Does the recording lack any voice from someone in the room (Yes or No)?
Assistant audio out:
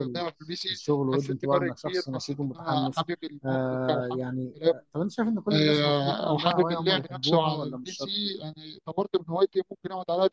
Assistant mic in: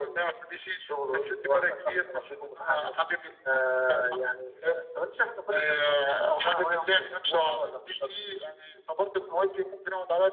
Yes